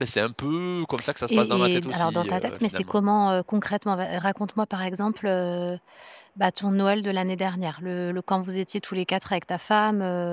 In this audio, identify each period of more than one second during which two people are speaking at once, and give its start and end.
1.3-3.0

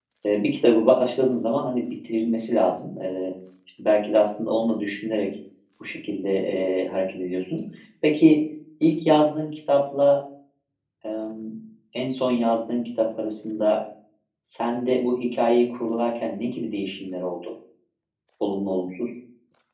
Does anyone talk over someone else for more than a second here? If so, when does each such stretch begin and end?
none

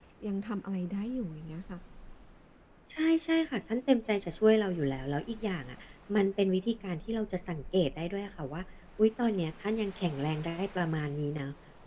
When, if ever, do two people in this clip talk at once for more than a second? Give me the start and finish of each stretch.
none

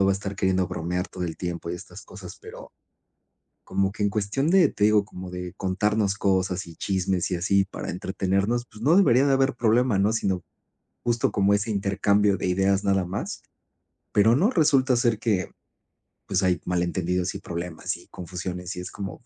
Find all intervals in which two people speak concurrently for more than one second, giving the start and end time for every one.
none

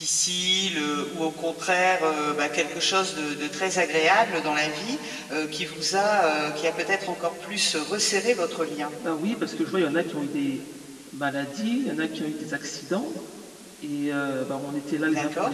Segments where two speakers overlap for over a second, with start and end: none

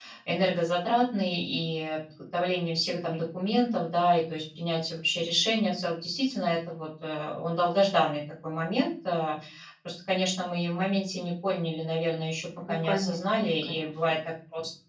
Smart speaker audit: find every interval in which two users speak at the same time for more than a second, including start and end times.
12.7-14.2

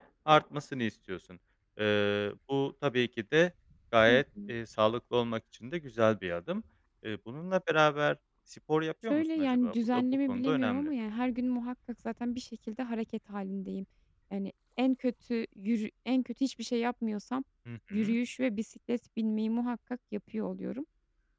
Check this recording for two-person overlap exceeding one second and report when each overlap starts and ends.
9.1-10.9

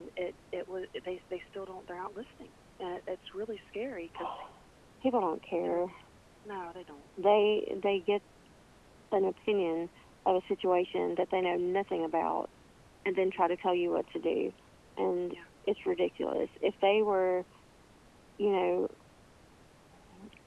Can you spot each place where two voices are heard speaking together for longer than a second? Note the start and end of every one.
none

